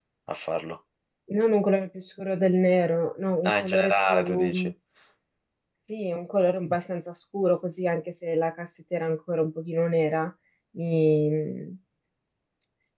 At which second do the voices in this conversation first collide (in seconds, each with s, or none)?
3.5 s